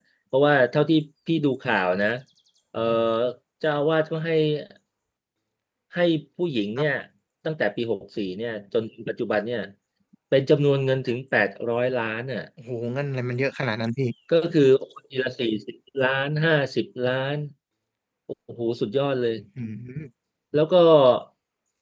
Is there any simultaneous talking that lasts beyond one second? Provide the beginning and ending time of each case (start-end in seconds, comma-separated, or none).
none